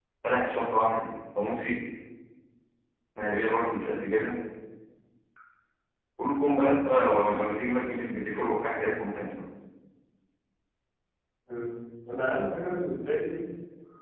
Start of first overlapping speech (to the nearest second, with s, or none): none